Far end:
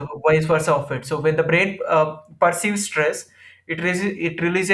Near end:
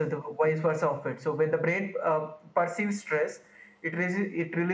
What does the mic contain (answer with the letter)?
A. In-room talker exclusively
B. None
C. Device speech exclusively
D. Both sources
C